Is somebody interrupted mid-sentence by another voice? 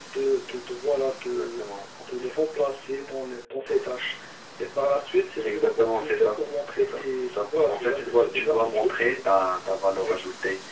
Yes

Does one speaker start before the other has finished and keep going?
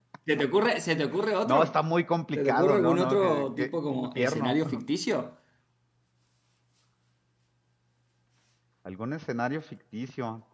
Yes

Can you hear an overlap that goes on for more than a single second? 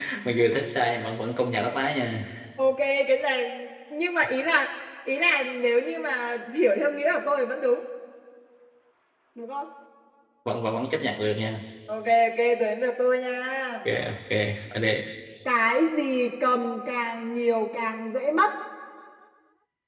No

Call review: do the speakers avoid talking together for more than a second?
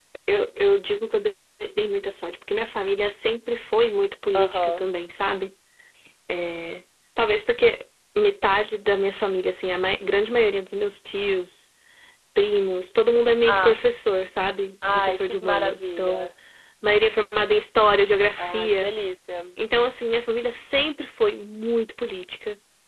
No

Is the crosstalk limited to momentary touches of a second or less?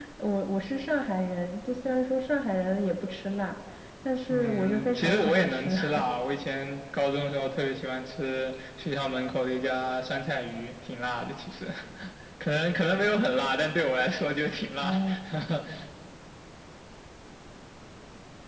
No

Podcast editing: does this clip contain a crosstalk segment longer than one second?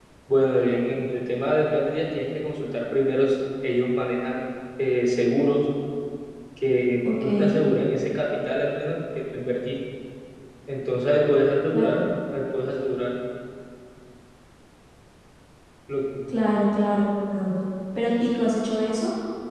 No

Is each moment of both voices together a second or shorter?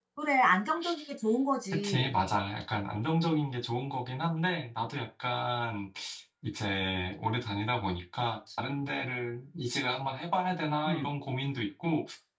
Yes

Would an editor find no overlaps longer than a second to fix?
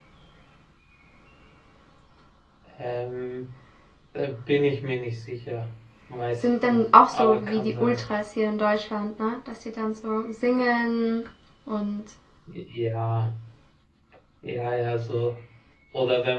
No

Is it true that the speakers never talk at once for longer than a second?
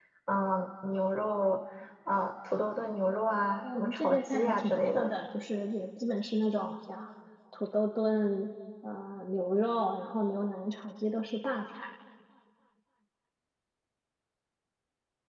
No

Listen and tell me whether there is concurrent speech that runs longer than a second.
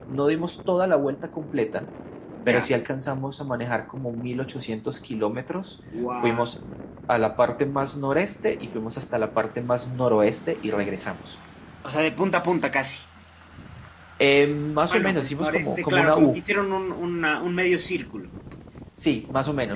Yes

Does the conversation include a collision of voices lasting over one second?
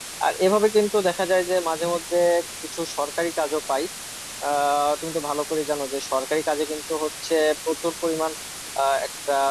No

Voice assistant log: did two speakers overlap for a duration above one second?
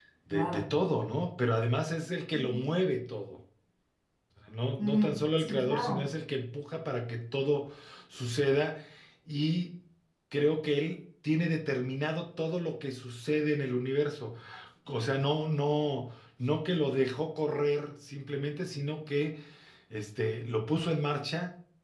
Yes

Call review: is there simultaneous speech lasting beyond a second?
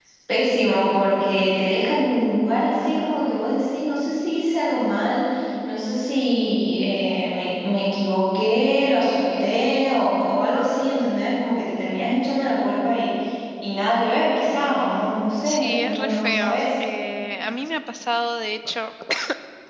Yes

